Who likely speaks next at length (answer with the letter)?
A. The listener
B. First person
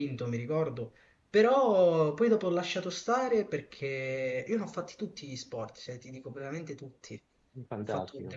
B